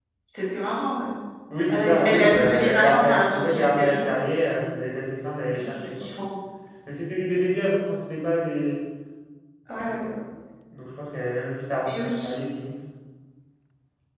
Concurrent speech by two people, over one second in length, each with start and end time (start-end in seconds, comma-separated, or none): 1.7-4.0